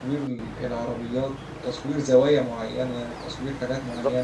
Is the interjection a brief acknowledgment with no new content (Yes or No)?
No